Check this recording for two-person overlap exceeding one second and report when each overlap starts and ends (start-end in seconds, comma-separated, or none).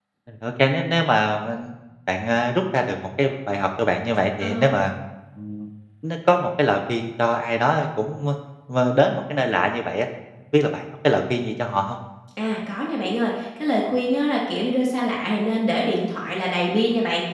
none